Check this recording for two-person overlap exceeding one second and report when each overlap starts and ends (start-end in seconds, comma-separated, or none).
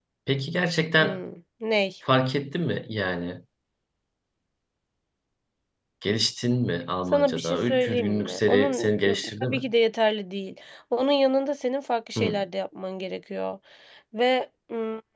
7.1-8.9